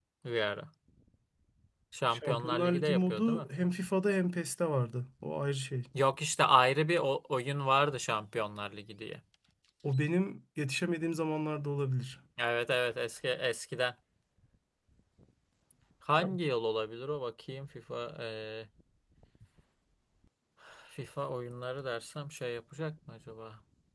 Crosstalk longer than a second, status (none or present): present